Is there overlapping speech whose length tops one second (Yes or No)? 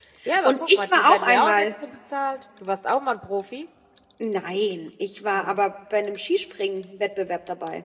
Yes